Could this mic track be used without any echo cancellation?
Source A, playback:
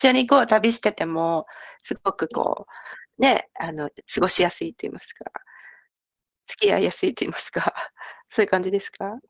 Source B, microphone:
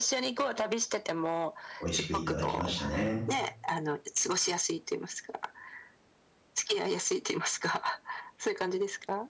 No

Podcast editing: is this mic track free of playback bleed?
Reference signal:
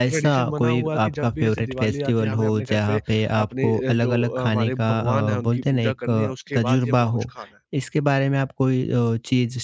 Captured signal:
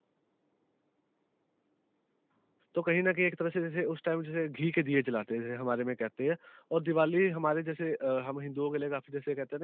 Yes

